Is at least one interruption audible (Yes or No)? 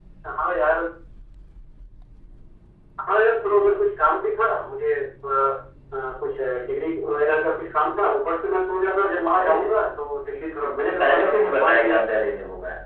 Yes